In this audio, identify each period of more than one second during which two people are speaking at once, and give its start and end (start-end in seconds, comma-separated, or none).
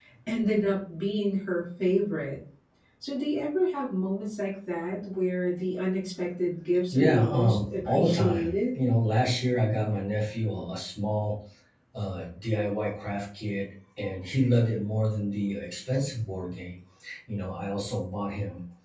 6.9-8.8